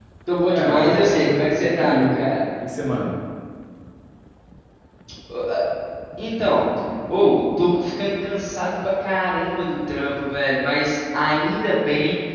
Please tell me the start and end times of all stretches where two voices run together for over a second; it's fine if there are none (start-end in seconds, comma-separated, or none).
0.5-2.1